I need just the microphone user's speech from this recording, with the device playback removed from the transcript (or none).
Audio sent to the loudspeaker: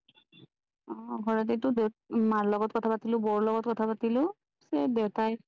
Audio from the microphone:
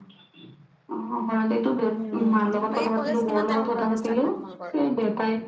উম, বাকী কলেজ কিমান টাইমৰ পৰা ষ্টাৰ্ট হয় তোমালোকৰ?